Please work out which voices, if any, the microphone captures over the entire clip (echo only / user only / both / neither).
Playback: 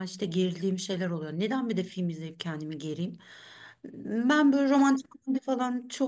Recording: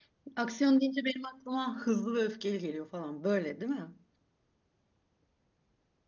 user only